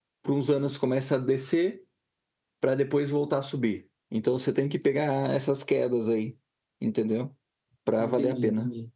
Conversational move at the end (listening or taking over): taking over